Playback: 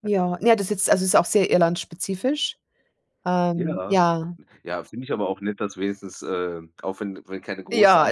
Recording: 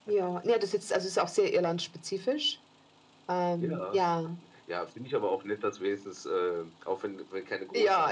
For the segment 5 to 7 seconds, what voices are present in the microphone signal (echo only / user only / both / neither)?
echo only